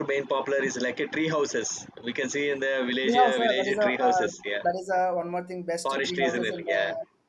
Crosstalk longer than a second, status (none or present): present